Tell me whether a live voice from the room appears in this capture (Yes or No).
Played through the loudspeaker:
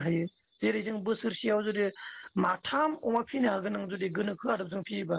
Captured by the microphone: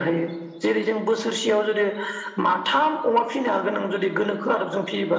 No